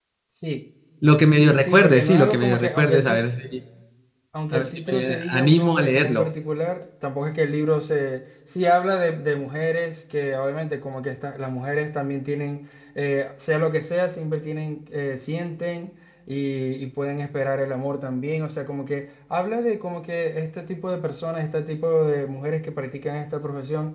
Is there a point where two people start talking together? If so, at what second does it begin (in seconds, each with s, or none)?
1.6 s